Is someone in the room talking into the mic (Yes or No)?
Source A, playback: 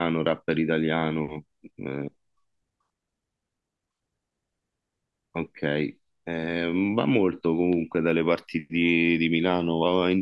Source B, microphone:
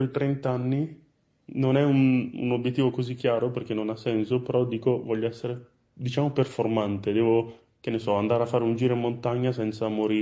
Yes